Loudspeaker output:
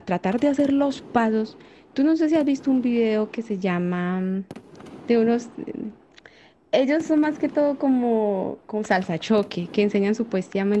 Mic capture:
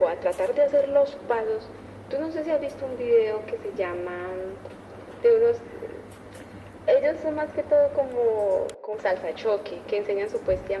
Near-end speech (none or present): none